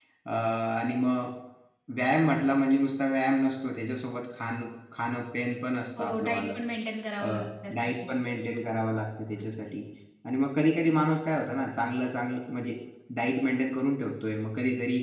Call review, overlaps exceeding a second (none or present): none